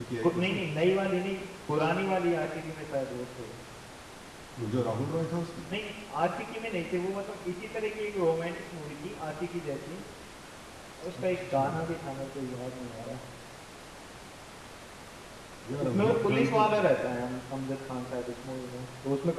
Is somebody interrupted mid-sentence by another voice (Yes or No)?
Yes